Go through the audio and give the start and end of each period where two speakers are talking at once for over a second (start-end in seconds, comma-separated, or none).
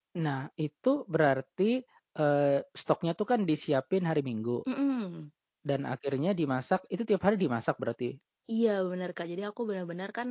none